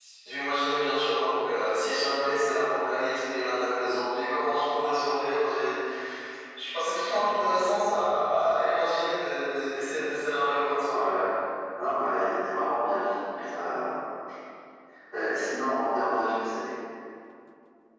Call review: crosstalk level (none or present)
none